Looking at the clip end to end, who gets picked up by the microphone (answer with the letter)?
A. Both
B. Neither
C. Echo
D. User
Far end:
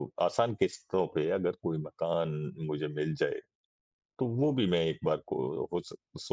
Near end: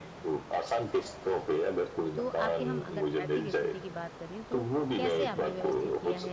A